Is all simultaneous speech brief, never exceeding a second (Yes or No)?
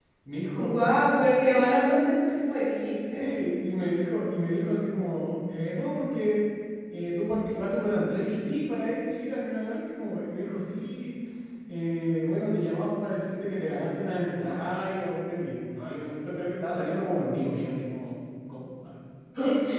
Yes